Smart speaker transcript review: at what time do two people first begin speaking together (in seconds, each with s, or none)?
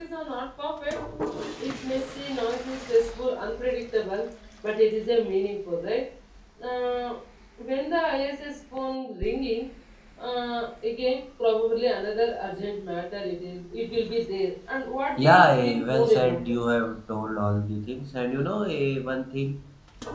15.2 s